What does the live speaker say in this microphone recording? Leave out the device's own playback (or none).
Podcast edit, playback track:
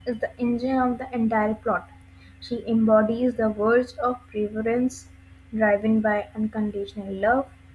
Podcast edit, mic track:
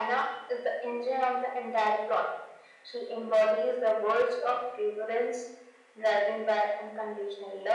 none